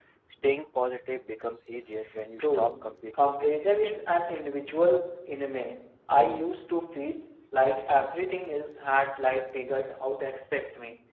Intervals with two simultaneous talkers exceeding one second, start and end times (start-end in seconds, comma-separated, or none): 2.4-4.2